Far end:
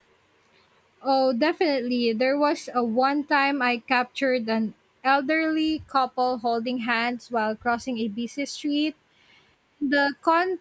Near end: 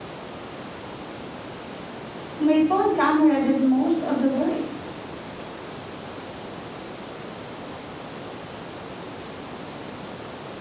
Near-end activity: present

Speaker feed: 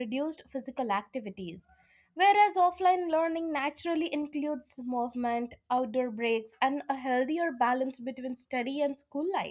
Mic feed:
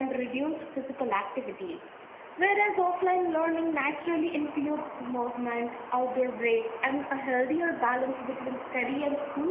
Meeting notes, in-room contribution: none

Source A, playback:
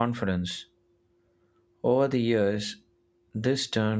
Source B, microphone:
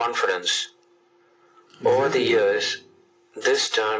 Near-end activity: present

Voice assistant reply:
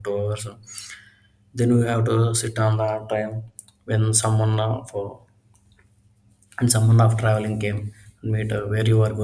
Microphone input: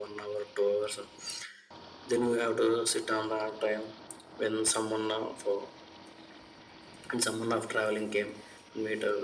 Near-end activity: none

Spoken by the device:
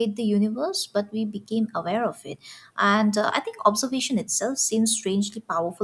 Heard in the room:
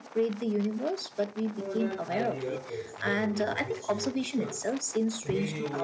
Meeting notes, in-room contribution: present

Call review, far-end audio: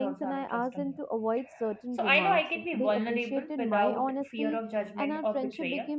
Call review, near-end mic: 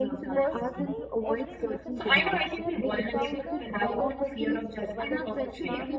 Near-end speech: present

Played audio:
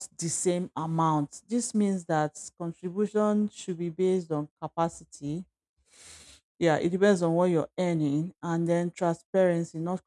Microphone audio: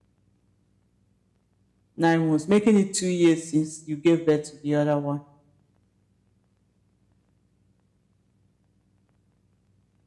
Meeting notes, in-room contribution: present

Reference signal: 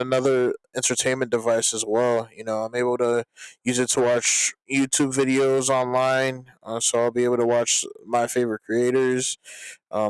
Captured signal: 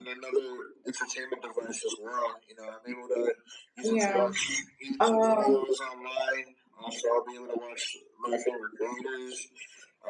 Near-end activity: present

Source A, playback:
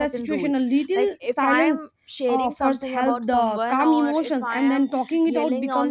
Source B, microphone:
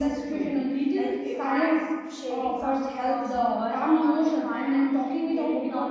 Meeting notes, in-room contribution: none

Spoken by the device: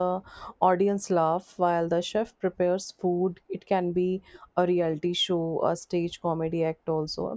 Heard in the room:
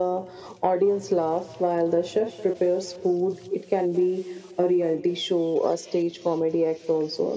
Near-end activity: none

